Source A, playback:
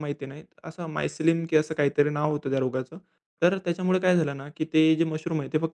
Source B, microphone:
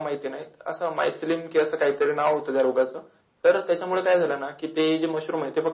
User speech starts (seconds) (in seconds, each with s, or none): none